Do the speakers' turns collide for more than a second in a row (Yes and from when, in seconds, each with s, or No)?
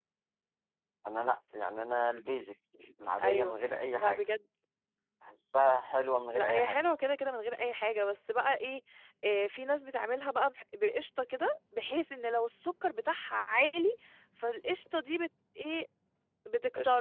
No